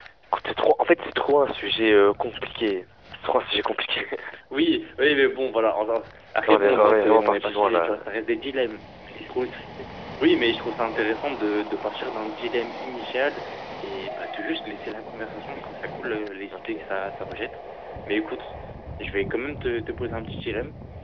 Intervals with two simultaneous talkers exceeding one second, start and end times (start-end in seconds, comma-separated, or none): 6.5-8.0